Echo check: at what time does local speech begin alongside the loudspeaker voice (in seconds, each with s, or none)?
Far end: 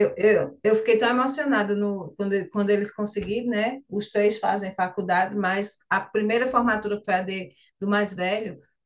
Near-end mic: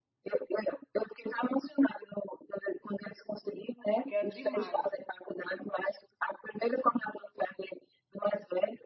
4.0 s